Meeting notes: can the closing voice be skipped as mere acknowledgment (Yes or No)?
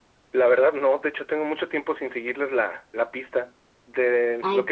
Yes